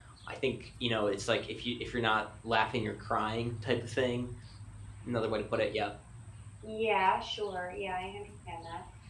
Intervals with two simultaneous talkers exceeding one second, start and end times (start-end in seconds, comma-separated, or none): none